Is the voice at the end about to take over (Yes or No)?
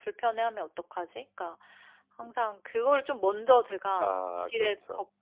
No